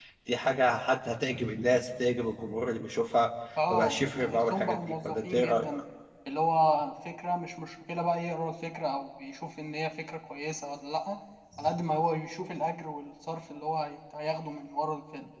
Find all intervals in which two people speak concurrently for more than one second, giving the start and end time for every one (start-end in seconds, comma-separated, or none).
3.7-5.7